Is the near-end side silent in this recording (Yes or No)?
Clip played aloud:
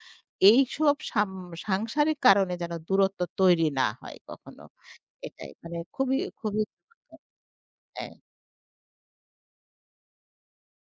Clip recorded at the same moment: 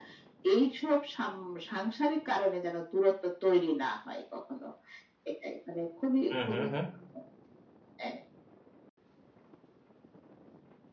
No